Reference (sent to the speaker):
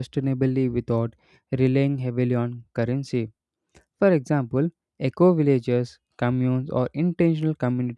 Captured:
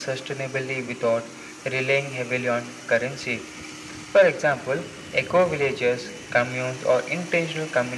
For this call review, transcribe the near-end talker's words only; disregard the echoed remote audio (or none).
none